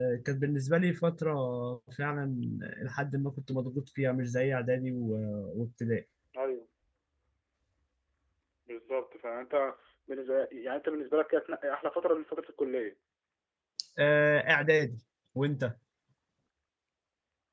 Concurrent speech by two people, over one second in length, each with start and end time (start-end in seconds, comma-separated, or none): none